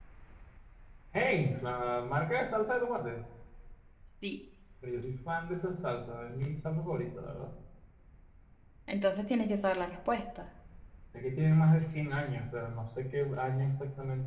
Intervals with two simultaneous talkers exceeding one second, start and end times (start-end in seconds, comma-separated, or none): none